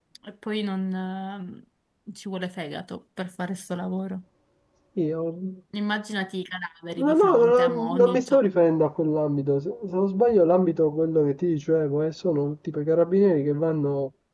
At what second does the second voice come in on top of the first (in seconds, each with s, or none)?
7.0 s